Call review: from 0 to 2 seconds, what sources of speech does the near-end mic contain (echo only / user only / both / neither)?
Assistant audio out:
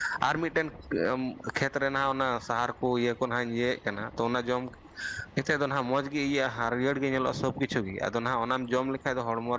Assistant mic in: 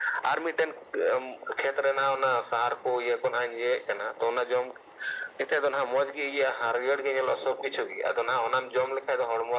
echo only